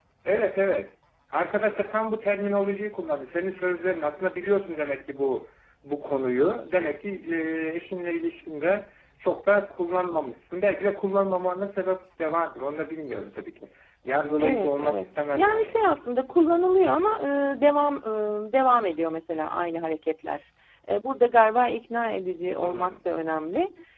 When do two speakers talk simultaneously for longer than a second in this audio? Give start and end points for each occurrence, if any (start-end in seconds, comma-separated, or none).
14.4-15.8